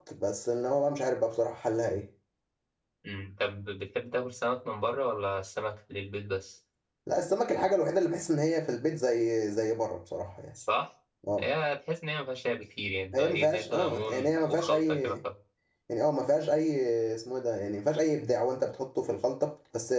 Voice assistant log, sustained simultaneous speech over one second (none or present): present